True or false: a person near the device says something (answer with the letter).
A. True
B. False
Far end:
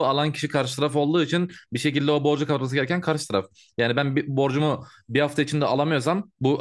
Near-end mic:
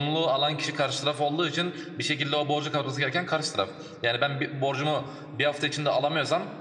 B